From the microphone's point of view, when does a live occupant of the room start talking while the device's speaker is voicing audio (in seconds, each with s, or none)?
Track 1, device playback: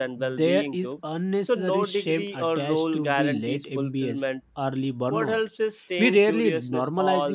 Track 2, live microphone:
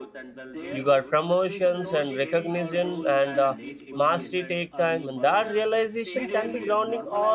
0.7 s